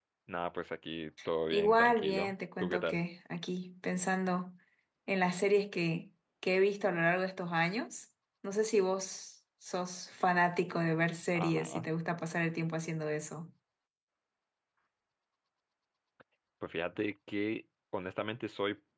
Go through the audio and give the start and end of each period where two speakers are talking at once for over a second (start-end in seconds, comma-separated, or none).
1.5-3.0